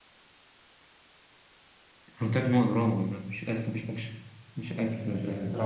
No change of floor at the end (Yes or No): No